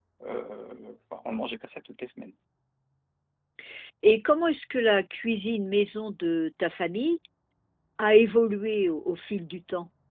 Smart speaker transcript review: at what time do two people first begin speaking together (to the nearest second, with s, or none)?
none